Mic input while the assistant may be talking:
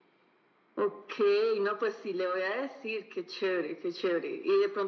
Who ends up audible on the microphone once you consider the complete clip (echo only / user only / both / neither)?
echo only